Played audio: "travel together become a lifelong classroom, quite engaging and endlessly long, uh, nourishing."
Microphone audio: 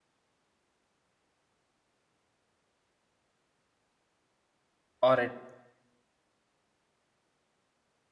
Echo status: none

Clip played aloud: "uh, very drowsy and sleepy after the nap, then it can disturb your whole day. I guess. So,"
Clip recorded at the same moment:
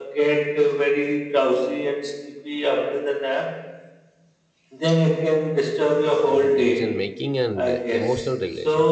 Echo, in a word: present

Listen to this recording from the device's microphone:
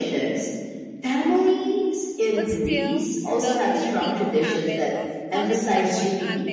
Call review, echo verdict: present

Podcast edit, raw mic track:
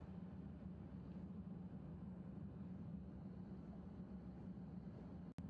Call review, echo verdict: none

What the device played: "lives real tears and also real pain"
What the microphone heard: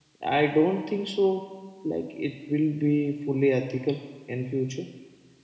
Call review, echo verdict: none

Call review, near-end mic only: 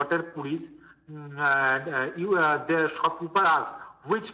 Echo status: present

